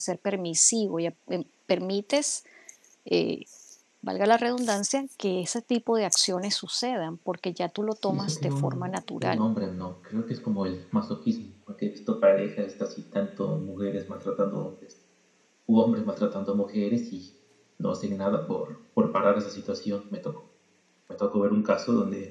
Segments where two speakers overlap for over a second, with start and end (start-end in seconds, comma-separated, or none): 8.0-9.5